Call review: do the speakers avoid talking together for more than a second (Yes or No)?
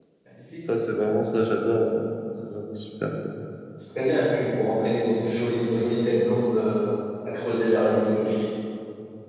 Yes